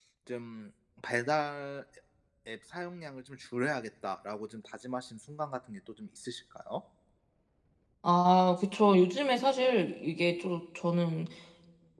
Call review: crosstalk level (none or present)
none